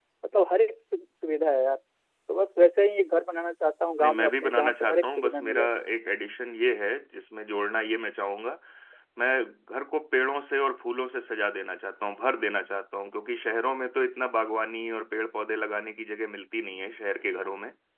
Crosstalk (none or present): present